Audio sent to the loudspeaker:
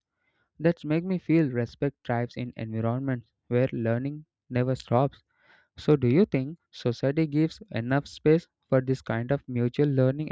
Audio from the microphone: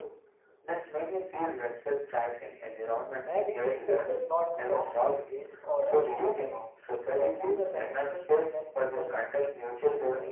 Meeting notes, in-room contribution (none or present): present